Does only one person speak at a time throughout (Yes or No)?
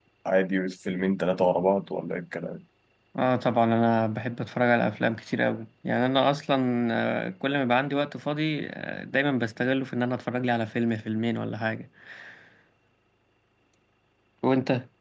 Yes